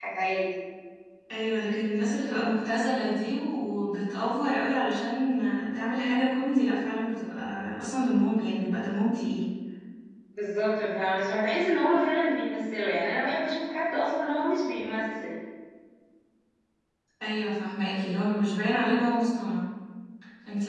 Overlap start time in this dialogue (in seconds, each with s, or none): none